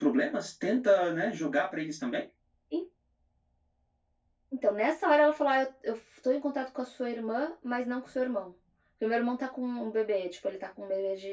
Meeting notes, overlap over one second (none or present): none